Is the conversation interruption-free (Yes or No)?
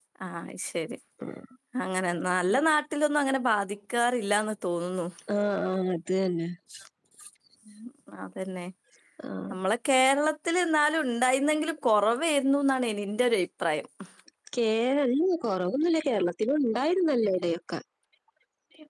Yes